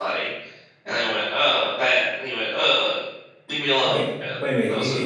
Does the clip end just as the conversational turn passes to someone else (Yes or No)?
Yes